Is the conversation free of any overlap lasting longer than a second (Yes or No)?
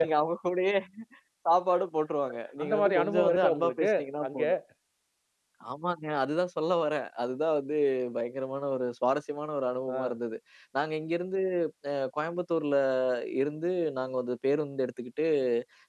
No